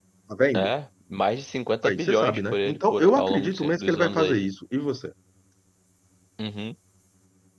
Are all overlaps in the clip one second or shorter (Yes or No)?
No